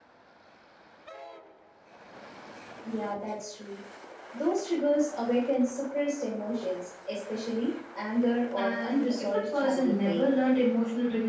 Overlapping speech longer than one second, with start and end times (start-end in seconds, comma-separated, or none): 8.6-10.4